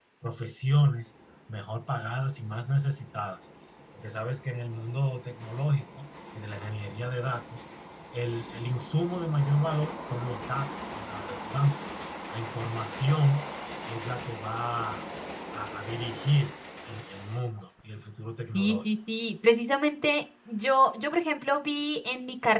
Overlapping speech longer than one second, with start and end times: none

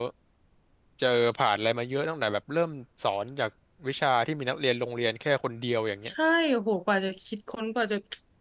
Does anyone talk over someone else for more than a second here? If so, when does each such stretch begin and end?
none

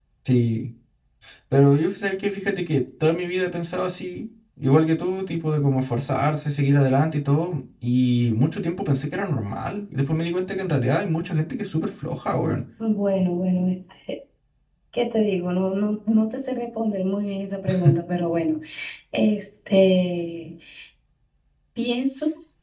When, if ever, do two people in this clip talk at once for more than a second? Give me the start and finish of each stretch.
none

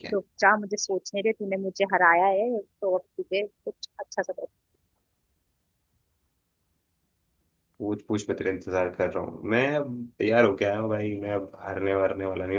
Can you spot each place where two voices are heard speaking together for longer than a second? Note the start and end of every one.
none

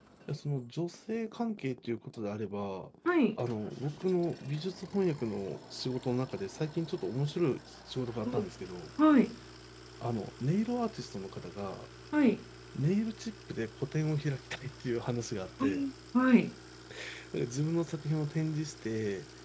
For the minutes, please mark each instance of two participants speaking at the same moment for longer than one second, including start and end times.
none

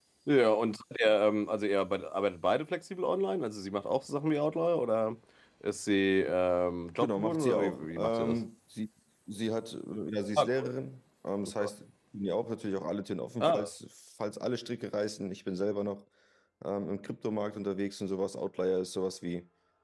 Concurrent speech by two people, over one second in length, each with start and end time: 7.0-8.4

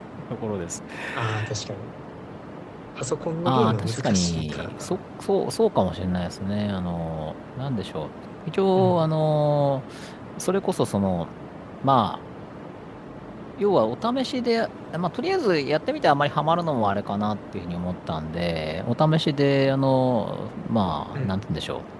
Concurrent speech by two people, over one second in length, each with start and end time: 3.4-5.0

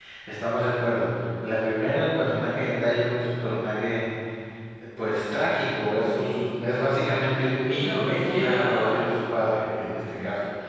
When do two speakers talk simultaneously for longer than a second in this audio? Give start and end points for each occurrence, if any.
7.7-9.1

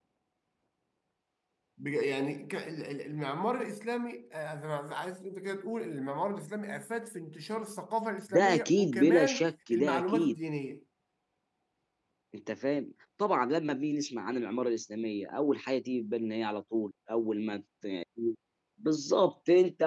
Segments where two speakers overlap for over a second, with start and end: 8.3-10.4

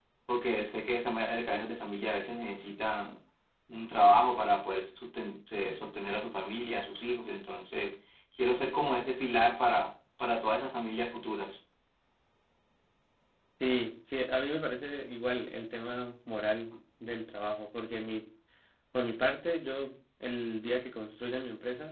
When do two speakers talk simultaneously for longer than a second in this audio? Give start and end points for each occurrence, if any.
none

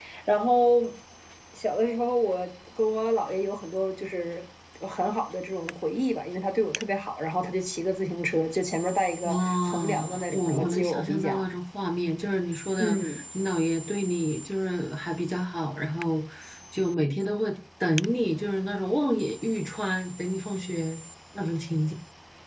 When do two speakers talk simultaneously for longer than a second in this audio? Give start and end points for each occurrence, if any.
9.2-11.4

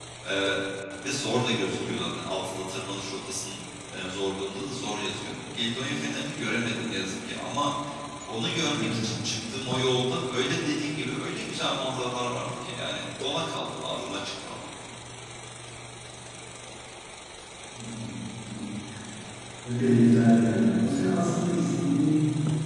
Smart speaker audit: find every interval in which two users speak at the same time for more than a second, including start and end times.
none

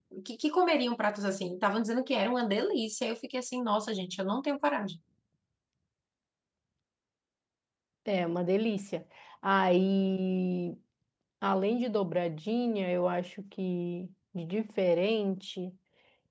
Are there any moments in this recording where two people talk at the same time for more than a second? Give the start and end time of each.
none

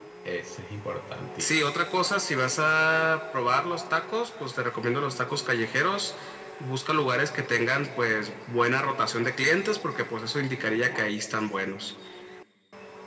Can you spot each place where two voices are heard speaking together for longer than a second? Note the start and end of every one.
none

